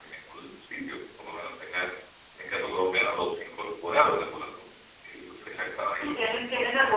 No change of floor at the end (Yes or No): No